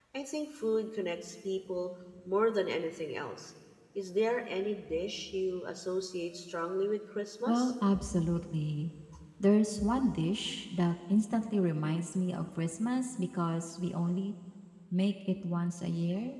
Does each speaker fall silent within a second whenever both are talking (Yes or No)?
Yes